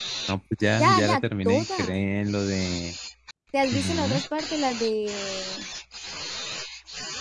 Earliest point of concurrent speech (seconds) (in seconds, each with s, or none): 0.8 s